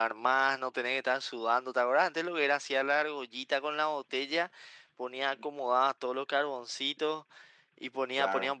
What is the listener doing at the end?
listening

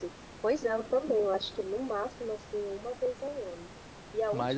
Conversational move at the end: listening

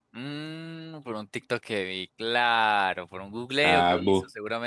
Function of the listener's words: taking over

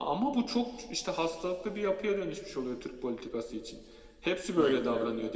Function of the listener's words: listening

